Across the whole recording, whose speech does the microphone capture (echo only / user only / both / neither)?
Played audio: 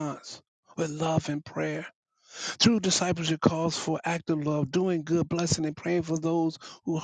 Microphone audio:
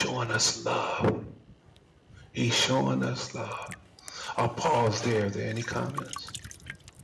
user only